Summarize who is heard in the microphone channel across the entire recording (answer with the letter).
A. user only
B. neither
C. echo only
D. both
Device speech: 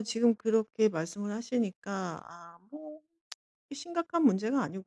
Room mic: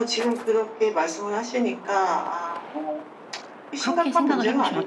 D